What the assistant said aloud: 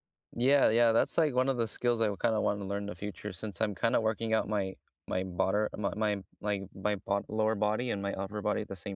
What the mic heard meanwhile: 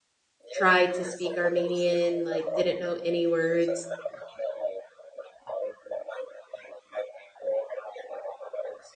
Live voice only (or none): tried to speak Armenian, like didn't know any words,"